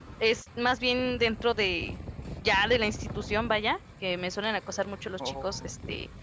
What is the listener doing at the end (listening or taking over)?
listening